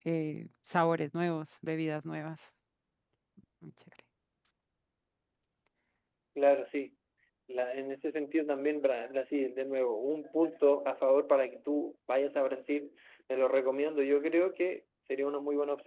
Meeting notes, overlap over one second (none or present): none